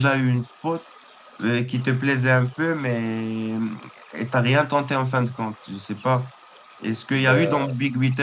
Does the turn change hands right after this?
No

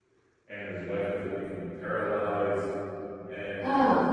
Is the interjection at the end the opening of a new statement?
No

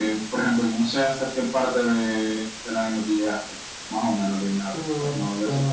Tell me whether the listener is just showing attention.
No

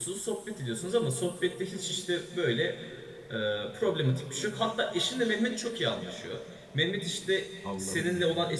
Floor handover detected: No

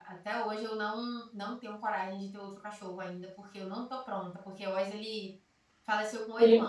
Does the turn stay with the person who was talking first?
Yes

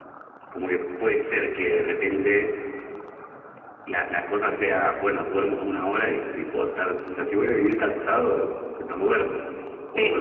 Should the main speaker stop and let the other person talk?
Yes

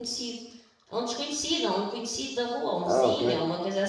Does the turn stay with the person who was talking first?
Yes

